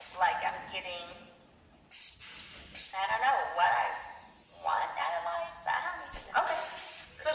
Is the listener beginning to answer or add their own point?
Yes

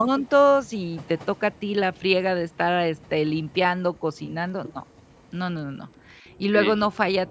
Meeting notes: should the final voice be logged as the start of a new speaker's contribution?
No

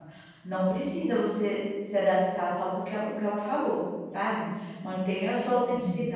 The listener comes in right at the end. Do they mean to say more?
No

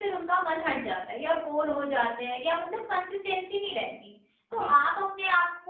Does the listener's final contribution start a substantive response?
No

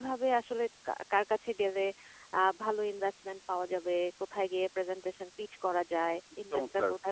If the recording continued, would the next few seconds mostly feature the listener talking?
No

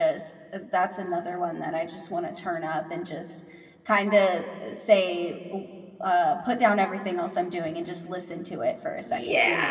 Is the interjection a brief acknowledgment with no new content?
No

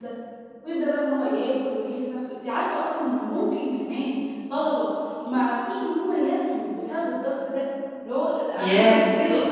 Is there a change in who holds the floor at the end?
Yes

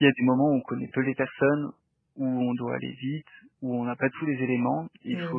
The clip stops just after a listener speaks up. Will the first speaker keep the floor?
Yes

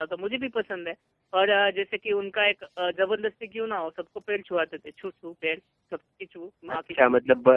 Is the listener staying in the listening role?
No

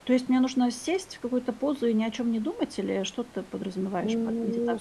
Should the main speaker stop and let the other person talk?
Yes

